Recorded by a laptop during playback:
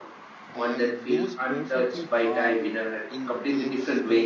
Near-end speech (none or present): present